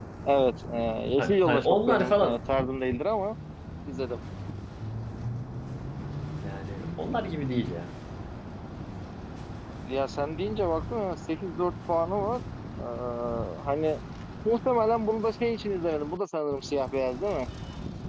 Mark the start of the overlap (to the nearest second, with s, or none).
1 s